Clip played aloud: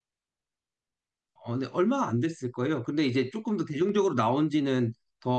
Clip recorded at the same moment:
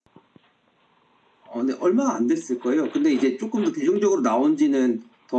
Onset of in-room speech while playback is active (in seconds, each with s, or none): none